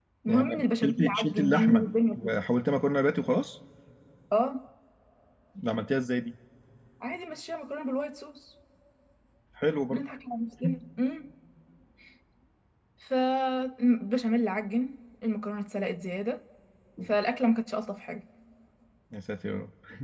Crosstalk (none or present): present